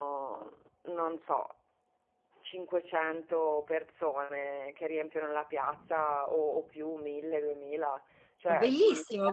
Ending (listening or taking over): taking over